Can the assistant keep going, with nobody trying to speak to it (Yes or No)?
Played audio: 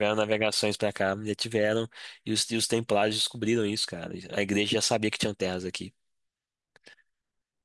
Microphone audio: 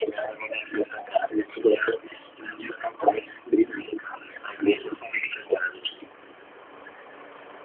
Yes